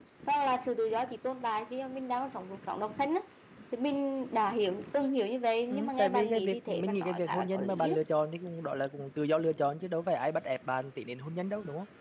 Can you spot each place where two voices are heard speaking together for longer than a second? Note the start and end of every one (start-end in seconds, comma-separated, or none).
5.7-8.0